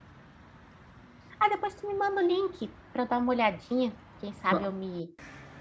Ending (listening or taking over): listening